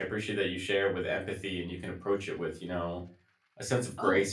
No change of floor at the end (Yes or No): No